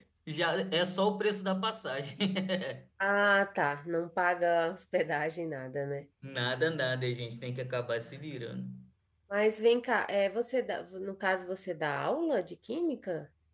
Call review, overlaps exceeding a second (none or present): none